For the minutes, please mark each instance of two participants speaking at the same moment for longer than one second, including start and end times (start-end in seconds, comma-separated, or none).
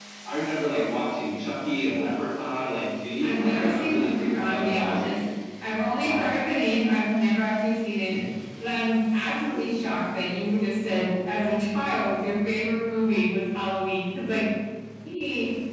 3.2-5.2